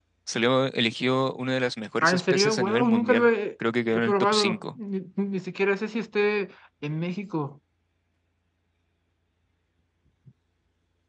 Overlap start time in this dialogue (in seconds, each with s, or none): 2.0 s